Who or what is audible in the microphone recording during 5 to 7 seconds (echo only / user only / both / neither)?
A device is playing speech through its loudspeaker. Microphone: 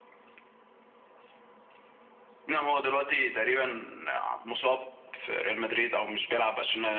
echo only